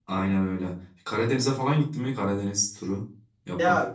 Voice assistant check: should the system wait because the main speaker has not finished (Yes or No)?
No